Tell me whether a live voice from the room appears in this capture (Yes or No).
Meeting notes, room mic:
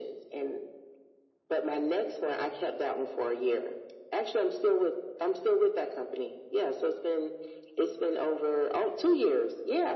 No